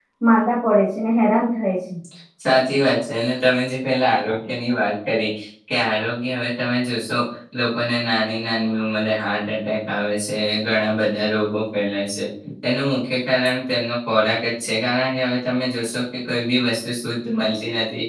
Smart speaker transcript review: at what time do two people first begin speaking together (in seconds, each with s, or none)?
none